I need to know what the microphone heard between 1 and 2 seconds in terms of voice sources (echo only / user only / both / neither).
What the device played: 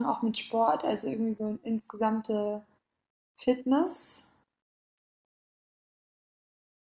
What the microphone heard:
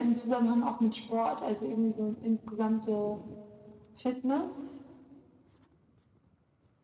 echo only